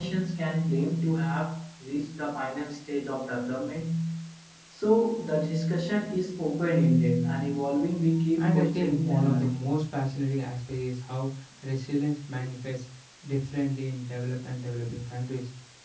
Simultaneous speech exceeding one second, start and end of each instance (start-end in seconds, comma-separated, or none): 8.4-9.7